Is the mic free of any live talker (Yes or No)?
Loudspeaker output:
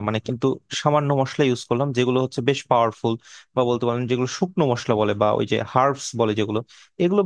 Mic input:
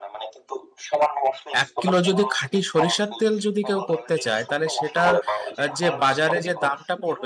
No